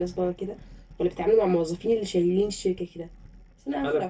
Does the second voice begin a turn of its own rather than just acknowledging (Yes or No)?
No